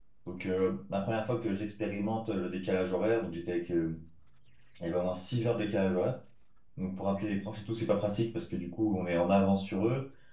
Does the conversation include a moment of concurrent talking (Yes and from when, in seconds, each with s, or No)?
No